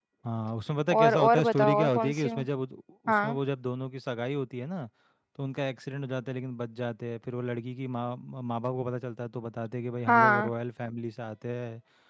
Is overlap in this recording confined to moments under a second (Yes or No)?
No